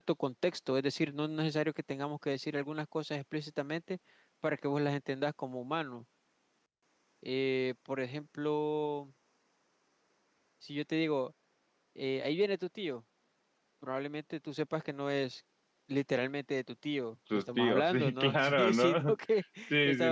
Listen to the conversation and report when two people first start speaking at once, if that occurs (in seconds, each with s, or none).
17.3 s